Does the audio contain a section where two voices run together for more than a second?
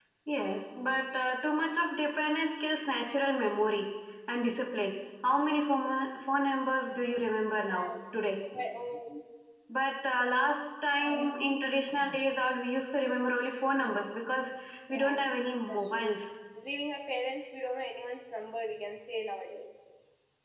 No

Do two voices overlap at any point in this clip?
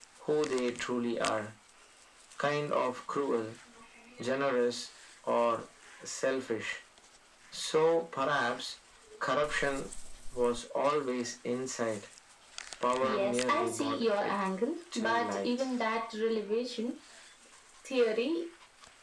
Yes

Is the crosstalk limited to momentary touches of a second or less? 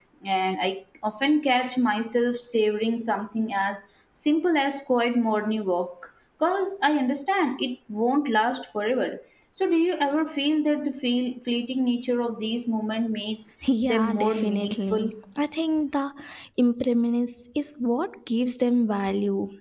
No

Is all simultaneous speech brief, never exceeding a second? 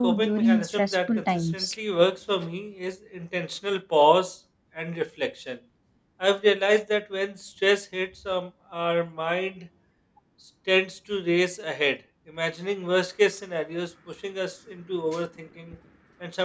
No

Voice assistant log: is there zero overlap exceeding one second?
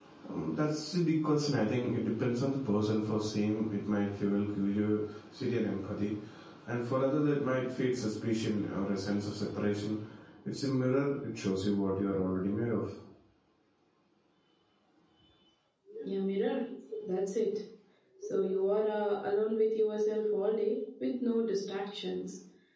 Yes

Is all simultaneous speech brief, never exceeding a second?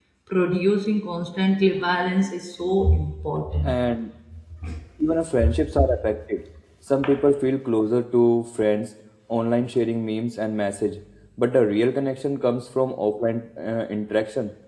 Yes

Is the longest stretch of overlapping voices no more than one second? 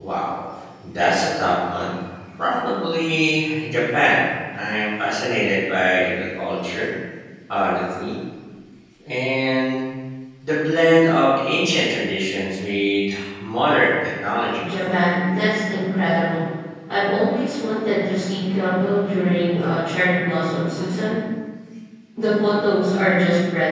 Yes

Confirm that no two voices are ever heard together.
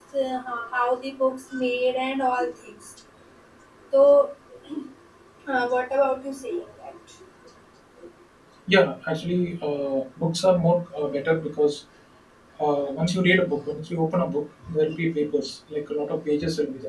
Yes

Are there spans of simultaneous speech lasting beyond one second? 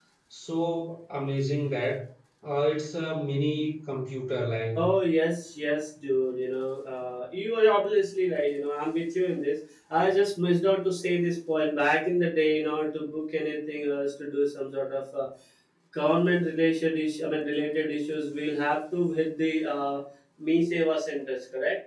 No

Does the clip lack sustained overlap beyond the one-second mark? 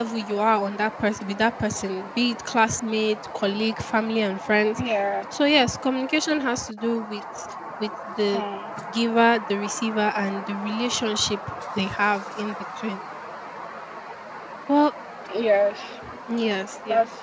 Yes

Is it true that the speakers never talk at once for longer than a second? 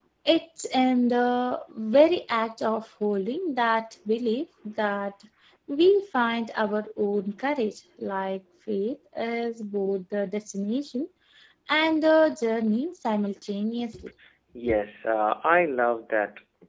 Yes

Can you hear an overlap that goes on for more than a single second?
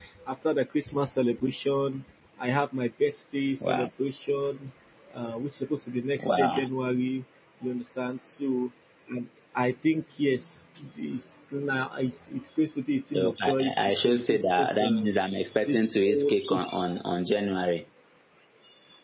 Yes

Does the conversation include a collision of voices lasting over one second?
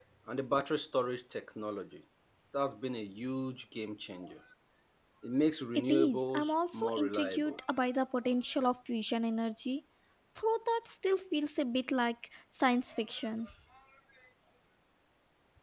Yes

